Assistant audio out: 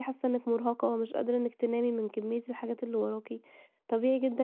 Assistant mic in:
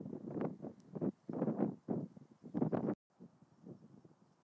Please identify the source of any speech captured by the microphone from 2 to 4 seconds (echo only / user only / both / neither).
neither